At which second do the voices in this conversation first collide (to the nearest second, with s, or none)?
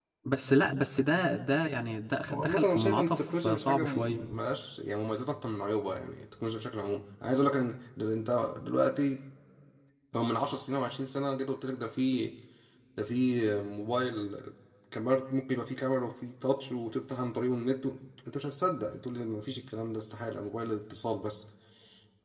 2 s